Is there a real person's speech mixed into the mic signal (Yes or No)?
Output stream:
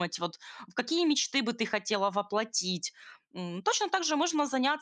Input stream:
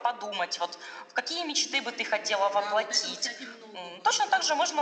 Yes